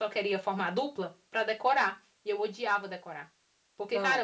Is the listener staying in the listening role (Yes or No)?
Yes